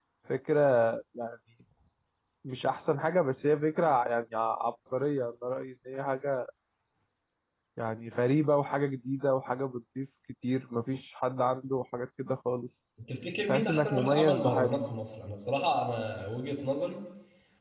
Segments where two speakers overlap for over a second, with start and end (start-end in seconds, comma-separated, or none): 13.5-14.7